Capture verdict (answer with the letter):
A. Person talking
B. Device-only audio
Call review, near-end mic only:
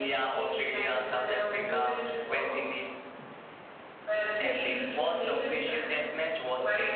A